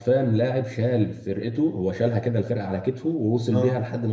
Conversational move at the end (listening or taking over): listening